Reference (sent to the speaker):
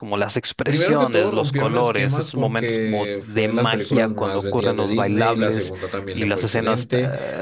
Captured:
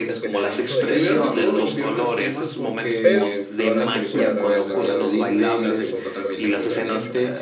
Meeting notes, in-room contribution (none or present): present